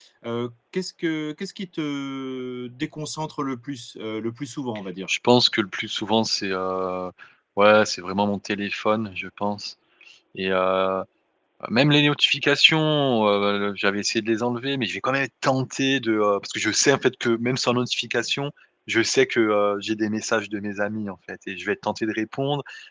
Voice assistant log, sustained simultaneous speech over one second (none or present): none